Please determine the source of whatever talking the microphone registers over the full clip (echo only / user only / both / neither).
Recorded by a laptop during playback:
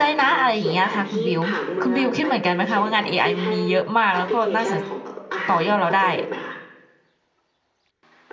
both